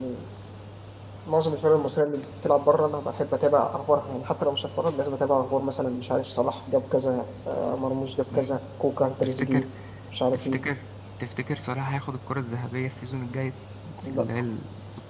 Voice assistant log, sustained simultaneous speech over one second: none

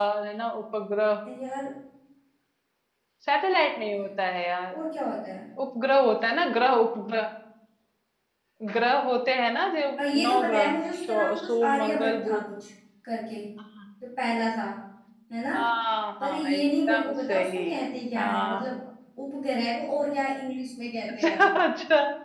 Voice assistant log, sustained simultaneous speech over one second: present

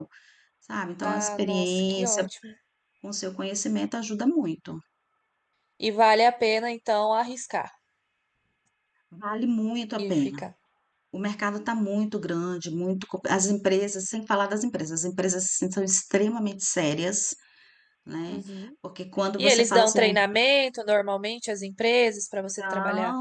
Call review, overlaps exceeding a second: present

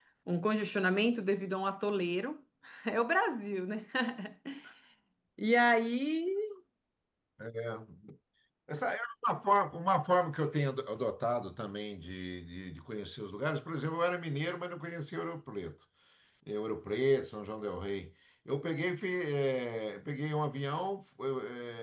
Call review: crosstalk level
none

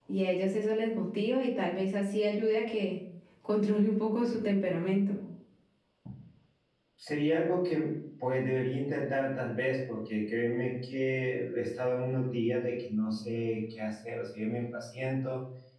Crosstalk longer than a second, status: none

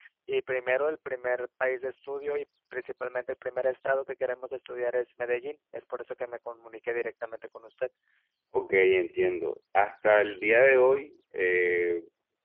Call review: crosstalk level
none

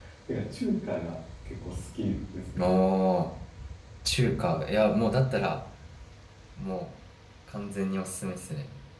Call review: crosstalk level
none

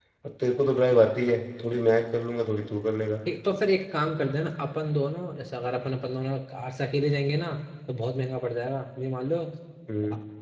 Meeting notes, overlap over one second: none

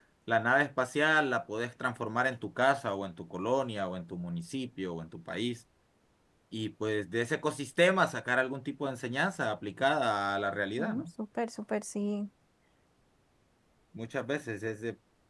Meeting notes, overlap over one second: none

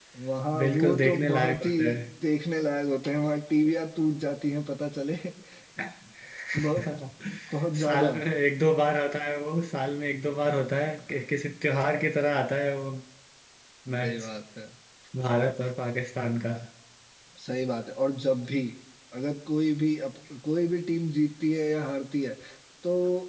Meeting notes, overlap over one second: present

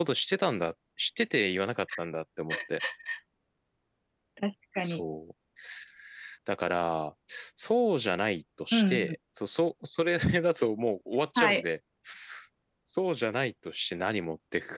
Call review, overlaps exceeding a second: none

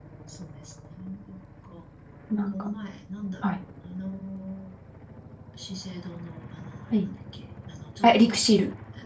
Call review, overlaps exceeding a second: none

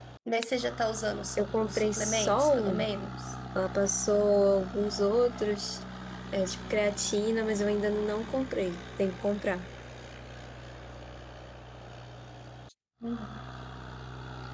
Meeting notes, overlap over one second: present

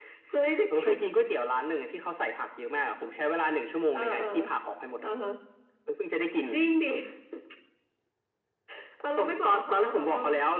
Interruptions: present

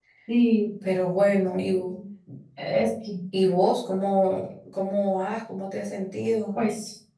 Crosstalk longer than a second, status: none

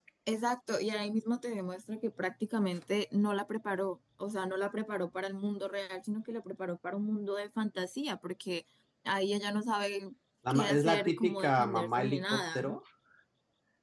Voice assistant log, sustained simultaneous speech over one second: present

